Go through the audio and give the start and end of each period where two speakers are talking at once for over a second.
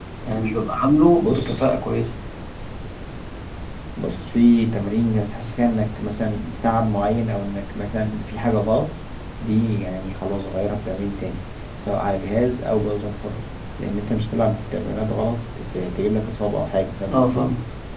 none

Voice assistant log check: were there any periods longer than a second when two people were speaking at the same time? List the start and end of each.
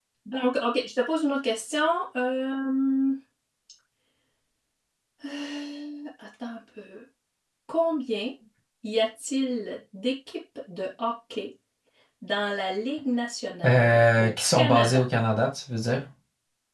13.6-15.0

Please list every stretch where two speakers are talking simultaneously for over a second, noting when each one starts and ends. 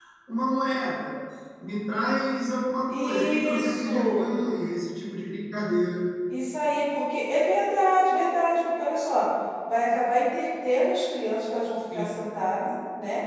2.9-4.3

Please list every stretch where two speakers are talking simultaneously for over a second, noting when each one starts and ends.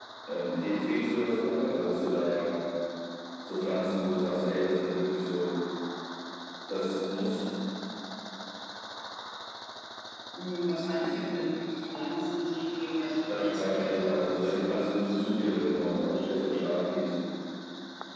13.3-14.5

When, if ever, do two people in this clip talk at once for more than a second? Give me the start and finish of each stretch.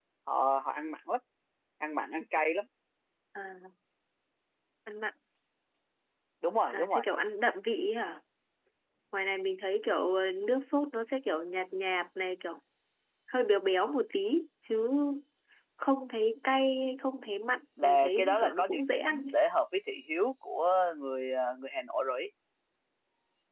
17.8-19.4

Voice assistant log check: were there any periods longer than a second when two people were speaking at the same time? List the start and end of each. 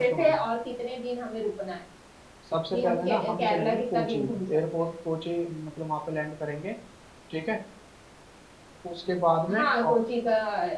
2.7-4.9

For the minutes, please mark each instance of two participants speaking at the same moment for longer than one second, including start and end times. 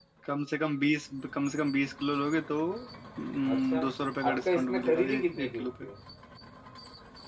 4.3-5.8

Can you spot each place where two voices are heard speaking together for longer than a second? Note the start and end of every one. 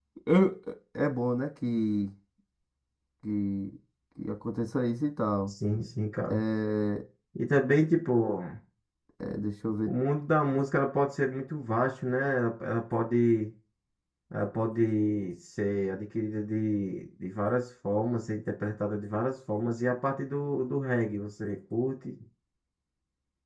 none

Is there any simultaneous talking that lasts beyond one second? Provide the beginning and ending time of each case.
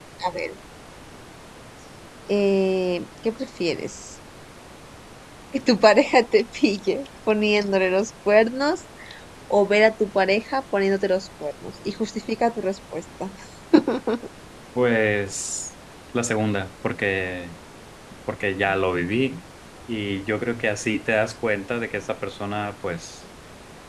none

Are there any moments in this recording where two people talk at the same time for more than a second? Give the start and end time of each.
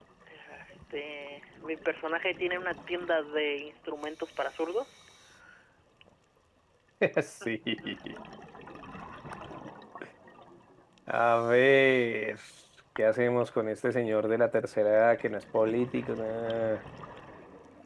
none

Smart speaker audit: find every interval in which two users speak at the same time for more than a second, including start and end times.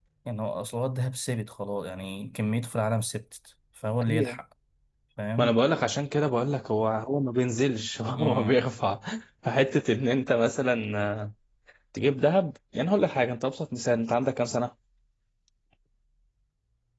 none

